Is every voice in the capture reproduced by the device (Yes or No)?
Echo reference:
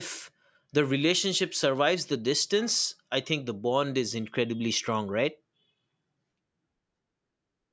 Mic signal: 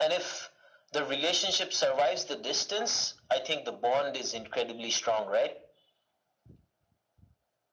Yes